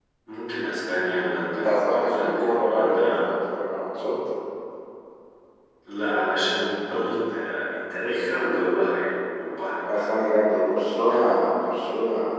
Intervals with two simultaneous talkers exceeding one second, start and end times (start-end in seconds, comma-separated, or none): 1.5-3.1